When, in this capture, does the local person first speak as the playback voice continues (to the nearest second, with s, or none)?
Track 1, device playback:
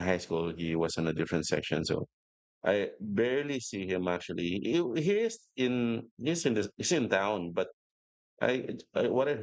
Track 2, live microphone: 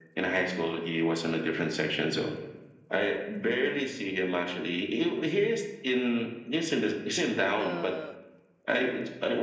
7 s